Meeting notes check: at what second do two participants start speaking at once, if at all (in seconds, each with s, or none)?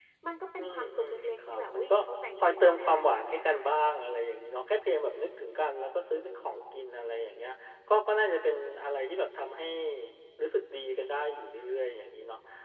0.6 s